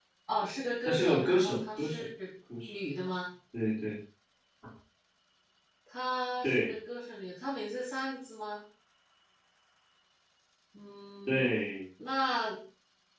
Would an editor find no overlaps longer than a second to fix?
No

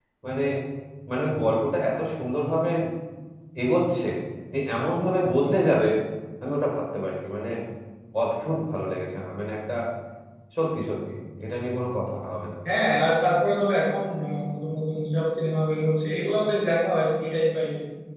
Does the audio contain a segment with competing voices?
No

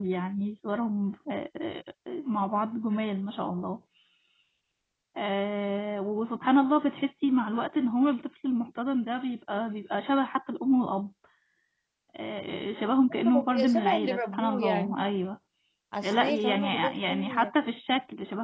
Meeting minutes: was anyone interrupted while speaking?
Yes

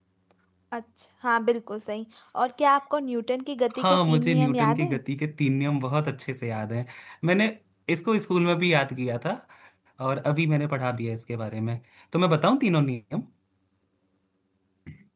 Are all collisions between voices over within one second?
No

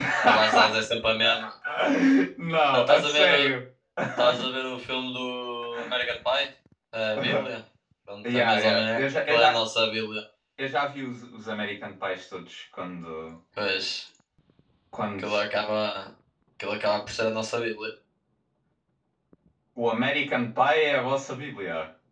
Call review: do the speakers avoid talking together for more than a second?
No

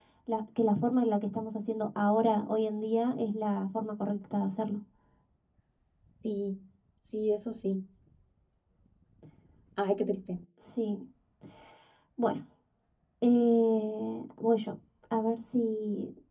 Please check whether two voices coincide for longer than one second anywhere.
No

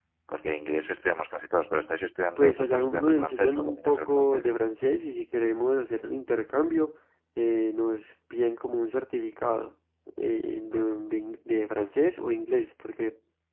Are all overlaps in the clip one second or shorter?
No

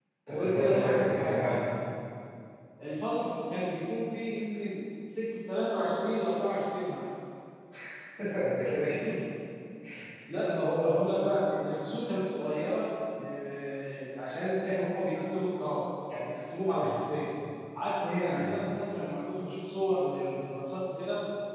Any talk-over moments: Yes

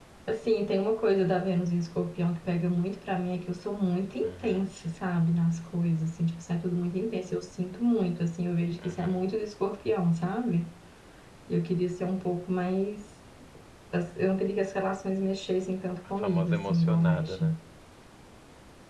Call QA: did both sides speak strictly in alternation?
No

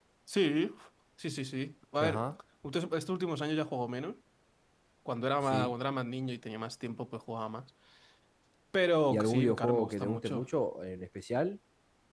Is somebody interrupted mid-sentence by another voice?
Yes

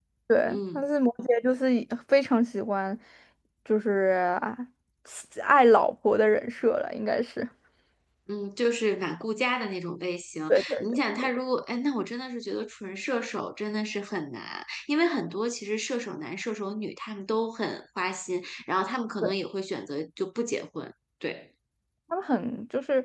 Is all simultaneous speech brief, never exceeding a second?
Yes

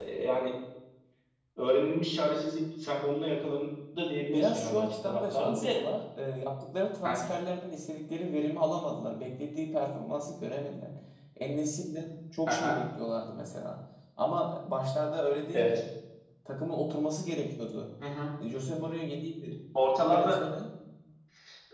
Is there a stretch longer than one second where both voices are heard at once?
Yes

